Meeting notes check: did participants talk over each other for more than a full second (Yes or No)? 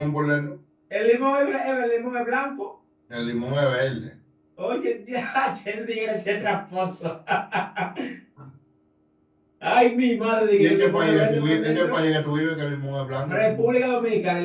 Yes